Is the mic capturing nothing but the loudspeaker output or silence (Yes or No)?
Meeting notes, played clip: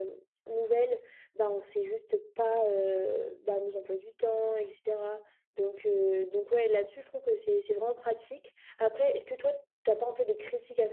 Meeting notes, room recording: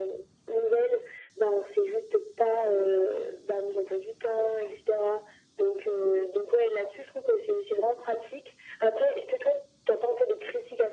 Yes